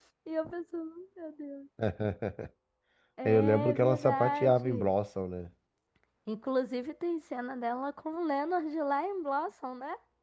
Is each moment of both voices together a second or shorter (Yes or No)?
No